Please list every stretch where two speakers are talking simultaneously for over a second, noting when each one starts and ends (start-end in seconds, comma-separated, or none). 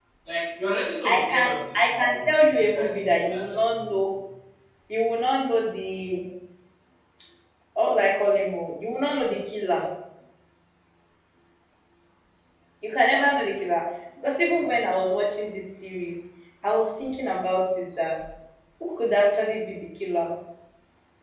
1.0-3.7